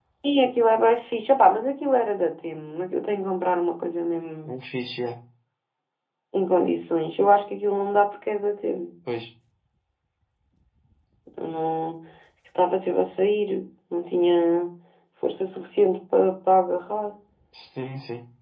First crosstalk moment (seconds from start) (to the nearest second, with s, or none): none